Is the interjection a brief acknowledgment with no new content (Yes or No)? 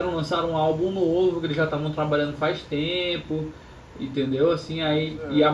Yes